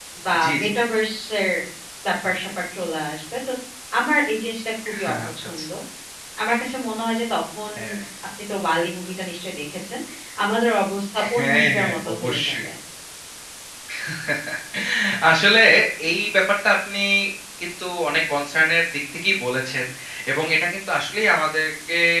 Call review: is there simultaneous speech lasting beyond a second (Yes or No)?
Yes